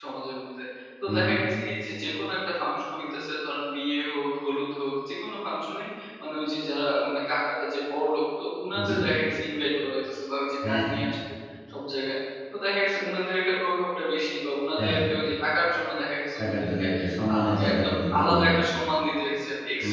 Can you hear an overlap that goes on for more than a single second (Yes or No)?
Yes